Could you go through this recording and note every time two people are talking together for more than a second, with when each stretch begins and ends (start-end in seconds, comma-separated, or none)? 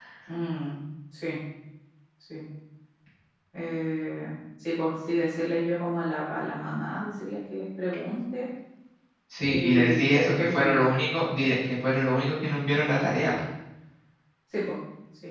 9.5-10.9